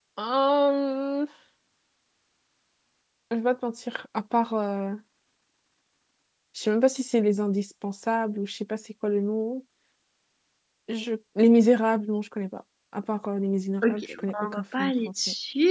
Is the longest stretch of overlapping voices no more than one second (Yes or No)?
No